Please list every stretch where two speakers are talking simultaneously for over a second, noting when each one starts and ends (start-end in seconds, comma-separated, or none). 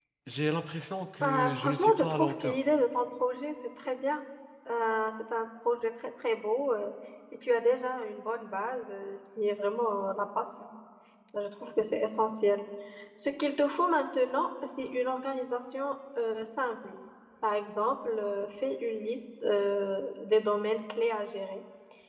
1.2-2.6